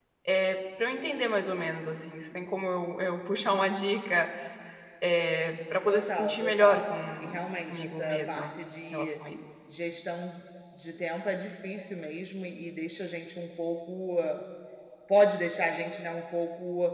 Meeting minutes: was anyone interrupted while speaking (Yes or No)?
Yes